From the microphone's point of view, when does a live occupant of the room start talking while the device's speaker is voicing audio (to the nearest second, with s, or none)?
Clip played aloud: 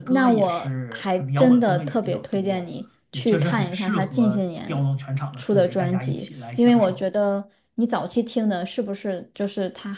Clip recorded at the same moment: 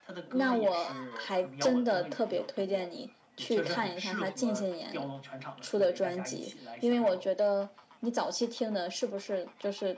none